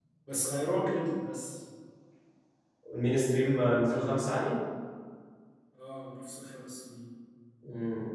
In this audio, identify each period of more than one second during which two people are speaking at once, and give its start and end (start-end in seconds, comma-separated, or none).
none